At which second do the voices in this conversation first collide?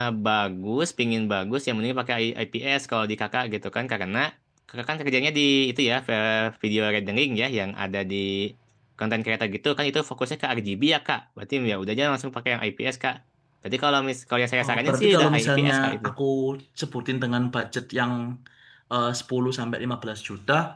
14.6 s

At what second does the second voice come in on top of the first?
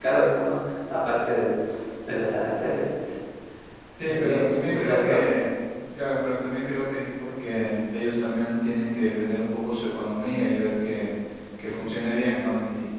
4.0 s

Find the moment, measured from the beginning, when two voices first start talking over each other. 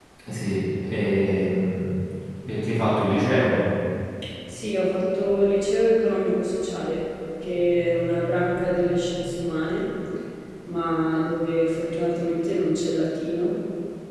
none

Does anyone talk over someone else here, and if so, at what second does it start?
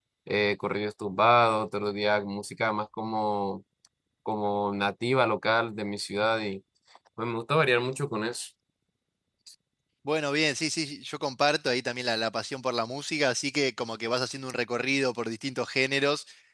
none

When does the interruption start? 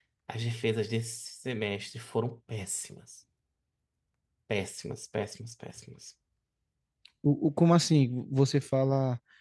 none

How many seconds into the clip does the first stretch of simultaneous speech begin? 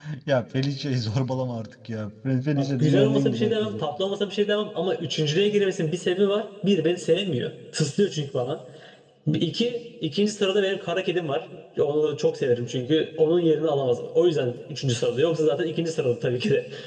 2.6 s

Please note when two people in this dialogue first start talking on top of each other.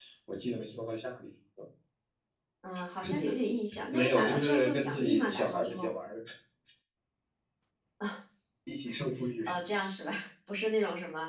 3.9 s

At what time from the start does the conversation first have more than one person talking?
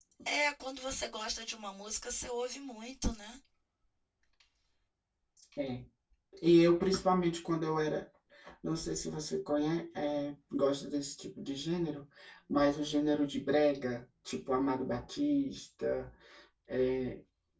none

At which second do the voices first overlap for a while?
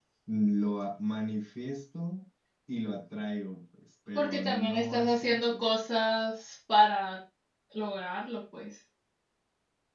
4.2 s

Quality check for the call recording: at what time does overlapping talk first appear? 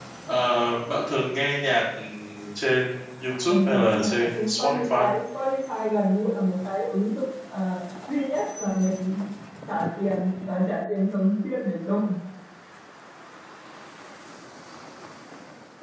3.5 s

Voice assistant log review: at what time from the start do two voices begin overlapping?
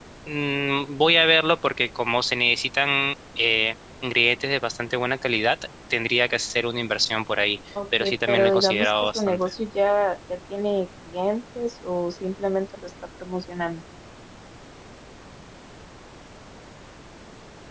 8.0 s

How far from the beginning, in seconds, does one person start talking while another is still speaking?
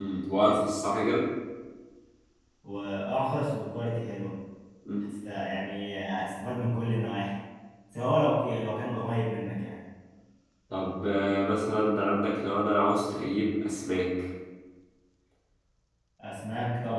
none

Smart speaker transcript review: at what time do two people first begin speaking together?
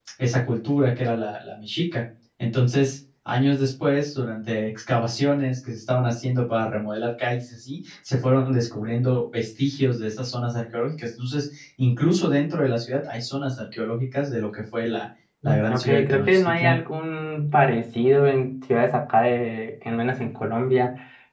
15.4 s

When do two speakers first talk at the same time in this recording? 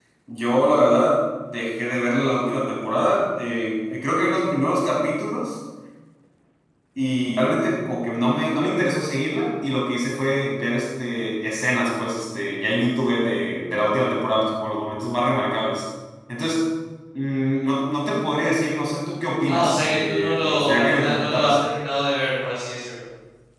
19.5 s

